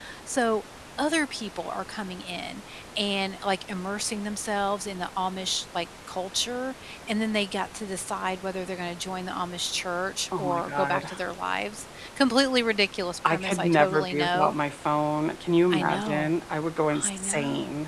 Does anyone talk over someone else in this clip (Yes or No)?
Yes